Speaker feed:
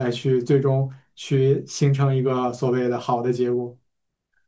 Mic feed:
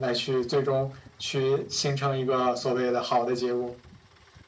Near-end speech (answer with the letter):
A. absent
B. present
A